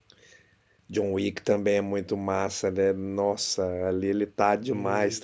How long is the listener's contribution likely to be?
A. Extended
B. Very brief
B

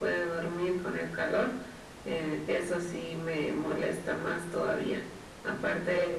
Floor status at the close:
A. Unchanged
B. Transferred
A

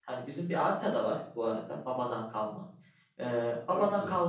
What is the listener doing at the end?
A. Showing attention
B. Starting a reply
A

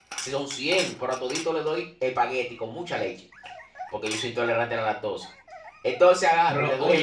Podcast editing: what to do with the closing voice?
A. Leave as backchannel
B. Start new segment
B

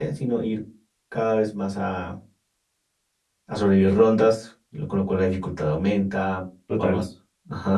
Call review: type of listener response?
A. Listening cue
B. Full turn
A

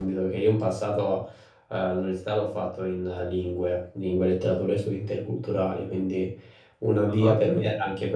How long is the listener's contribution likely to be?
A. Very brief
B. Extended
A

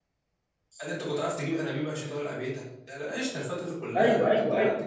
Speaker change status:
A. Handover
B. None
A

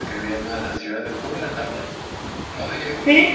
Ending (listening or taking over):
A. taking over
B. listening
B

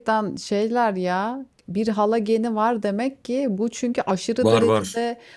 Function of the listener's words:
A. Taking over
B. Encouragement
B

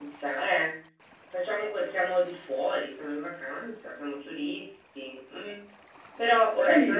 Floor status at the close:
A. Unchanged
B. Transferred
A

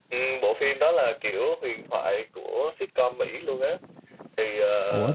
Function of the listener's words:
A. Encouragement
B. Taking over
B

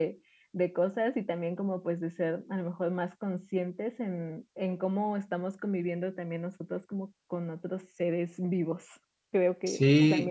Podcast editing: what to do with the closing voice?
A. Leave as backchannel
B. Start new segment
B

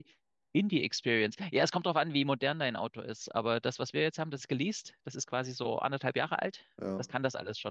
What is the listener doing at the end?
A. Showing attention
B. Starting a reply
A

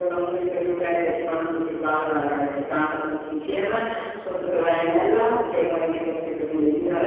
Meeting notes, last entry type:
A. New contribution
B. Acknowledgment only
B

